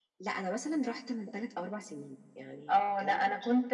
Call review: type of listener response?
taking over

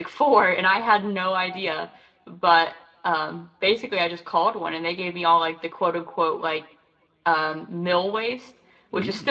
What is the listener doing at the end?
listening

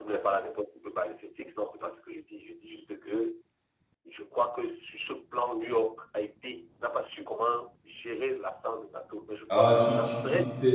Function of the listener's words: taking over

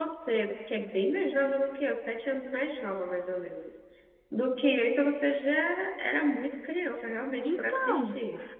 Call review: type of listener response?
taking over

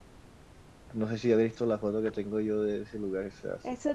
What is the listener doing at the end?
taking over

